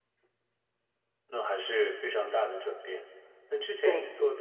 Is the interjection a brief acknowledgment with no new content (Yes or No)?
Yes